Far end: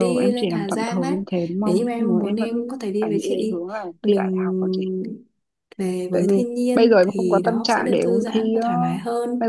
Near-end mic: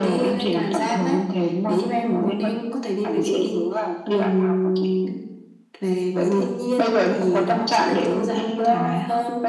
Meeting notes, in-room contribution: none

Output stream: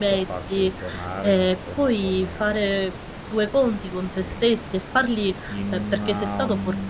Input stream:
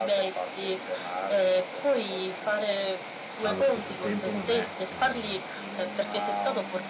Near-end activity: present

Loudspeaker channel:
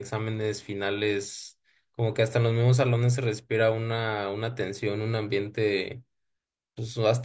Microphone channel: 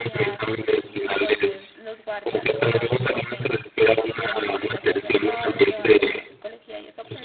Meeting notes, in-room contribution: present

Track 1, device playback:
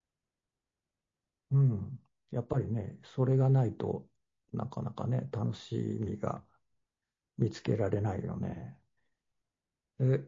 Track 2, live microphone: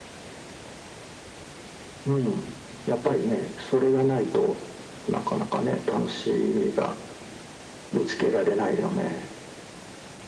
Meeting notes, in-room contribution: none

